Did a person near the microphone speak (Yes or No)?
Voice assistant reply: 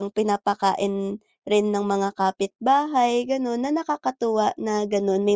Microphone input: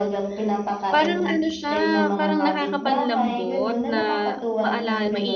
Yes